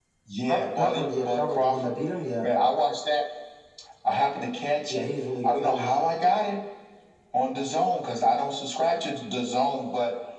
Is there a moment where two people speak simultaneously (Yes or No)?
Yes